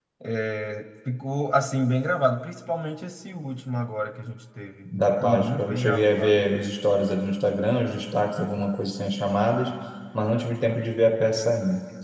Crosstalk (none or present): present